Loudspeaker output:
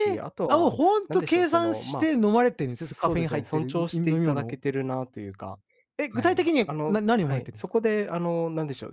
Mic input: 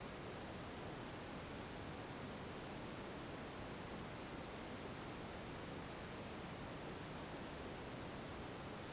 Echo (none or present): none